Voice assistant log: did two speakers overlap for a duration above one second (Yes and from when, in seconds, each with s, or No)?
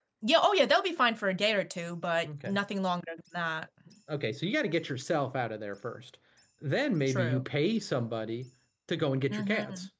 No